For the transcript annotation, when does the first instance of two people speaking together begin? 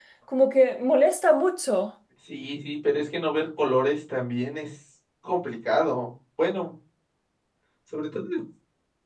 none

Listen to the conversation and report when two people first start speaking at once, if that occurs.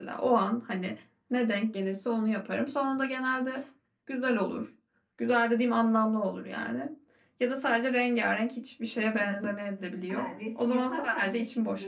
10.1 s

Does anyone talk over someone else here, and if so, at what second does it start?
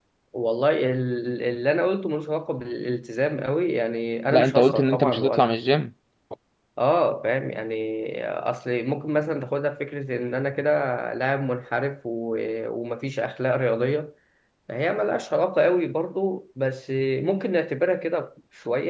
4.3 s

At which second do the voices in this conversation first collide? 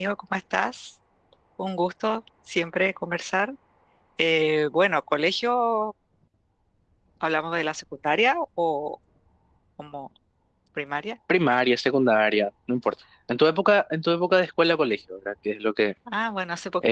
none

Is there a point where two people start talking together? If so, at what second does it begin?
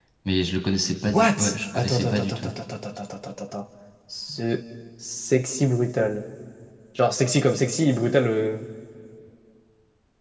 1.1 s

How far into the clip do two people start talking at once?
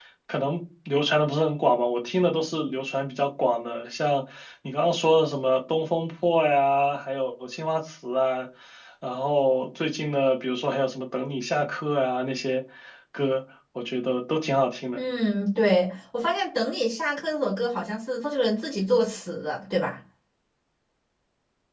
none

